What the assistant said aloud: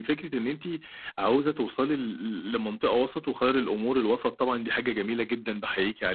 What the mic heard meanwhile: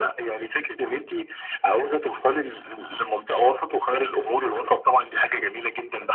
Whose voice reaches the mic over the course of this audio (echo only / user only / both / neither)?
echo only